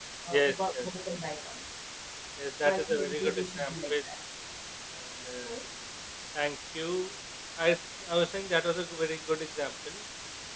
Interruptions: present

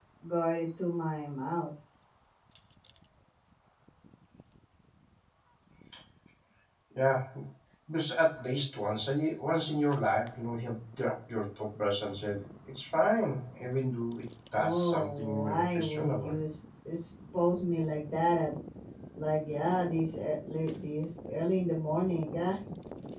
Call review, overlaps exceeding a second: present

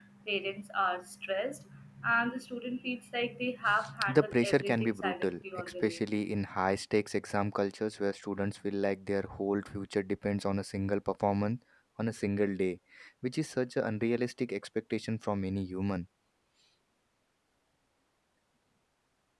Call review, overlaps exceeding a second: present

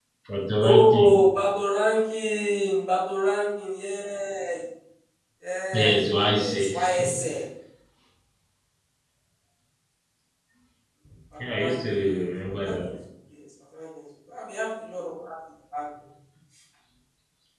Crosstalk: present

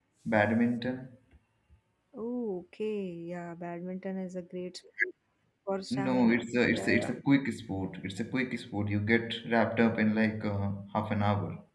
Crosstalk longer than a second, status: present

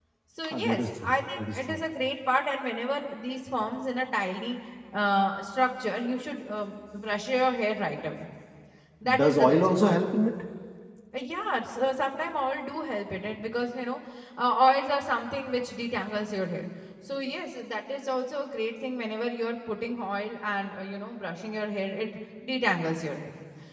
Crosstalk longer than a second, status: present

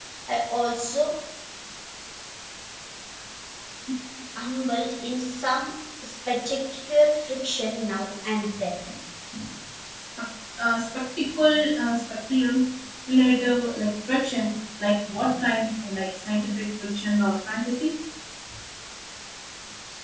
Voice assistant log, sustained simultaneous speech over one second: none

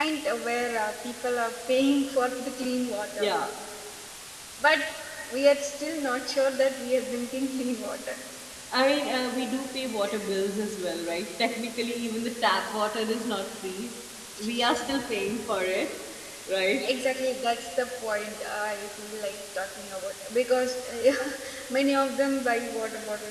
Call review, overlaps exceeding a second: none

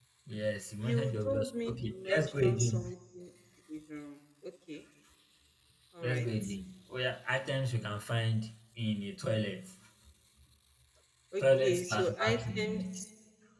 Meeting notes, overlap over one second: present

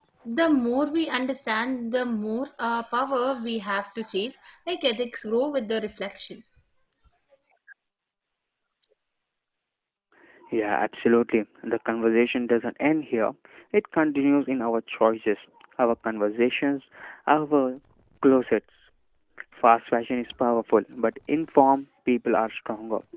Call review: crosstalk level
none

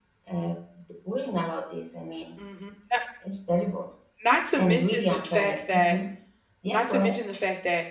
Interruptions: present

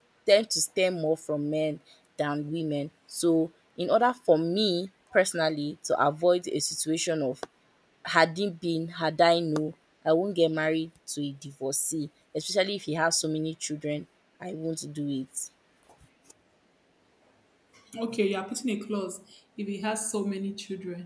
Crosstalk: none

